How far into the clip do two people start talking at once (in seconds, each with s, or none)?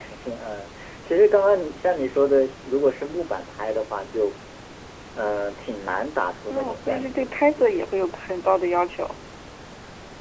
6.5 s